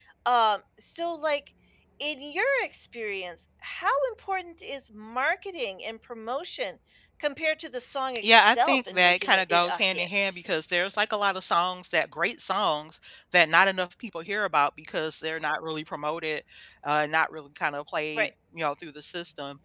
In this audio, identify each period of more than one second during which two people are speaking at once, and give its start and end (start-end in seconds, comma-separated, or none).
8.2-10.4